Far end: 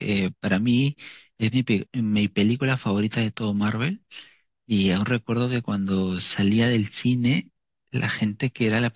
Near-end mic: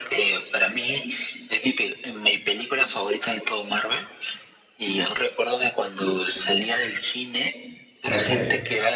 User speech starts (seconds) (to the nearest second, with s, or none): 8 s